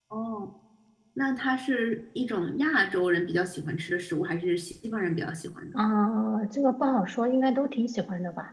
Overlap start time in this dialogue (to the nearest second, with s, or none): none